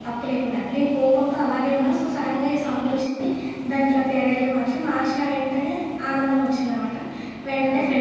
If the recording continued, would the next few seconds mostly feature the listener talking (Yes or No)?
No